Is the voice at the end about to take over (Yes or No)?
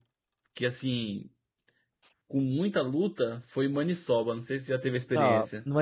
Yes